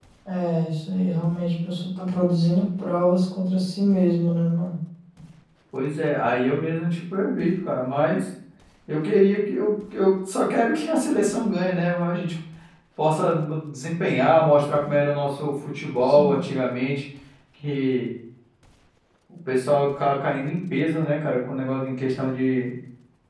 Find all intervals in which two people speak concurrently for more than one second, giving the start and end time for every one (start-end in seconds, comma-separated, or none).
none